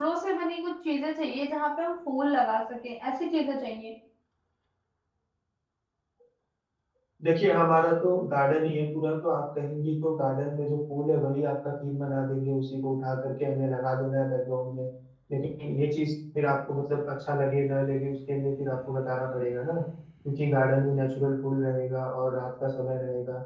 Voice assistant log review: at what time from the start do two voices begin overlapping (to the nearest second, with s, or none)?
none